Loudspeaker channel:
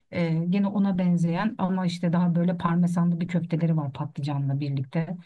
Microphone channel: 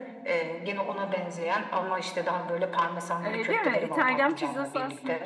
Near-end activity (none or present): present